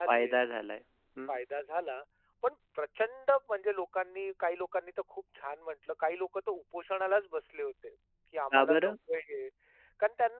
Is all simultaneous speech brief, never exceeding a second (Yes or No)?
Yes